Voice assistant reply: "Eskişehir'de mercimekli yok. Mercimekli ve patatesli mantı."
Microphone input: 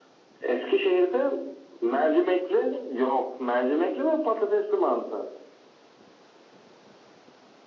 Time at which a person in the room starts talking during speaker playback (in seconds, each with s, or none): none